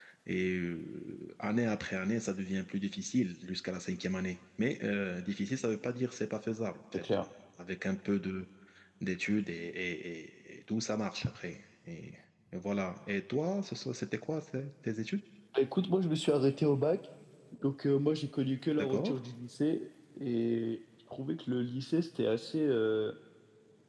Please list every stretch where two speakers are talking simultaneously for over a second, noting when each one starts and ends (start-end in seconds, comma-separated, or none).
none